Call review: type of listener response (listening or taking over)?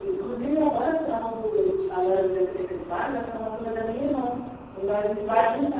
listening